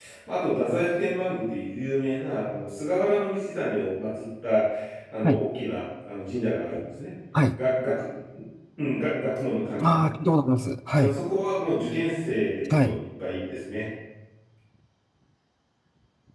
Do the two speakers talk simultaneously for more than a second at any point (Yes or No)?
No